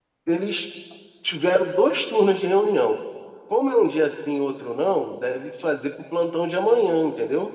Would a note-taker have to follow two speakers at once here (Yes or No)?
No